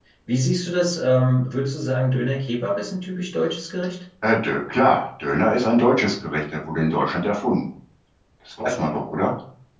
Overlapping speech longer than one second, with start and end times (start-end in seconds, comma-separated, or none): none